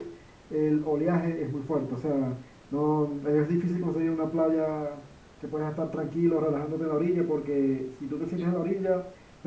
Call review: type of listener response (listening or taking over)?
listening